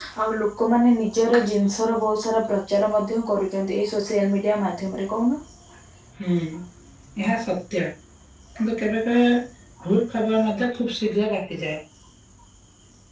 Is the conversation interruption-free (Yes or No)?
Yes